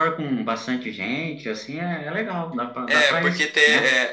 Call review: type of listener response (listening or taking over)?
taking over